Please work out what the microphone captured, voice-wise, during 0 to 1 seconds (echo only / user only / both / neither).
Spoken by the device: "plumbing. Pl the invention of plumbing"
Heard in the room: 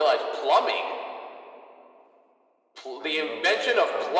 echo only